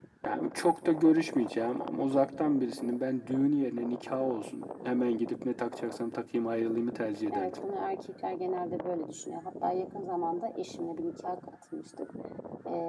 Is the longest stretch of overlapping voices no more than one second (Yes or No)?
Yes